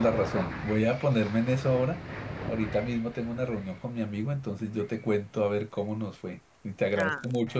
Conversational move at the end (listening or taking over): listening